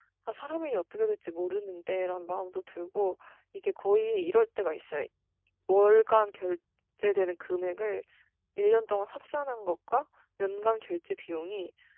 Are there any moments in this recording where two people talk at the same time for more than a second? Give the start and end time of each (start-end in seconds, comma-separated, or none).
none